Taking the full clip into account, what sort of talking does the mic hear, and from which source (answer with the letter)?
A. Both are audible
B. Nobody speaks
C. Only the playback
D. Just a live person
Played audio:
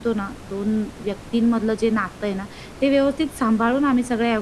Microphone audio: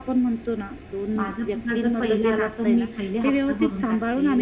A